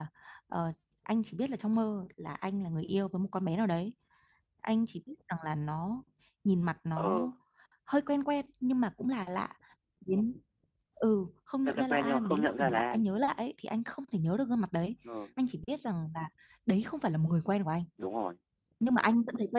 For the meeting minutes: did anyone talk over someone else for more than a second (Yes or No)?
Yes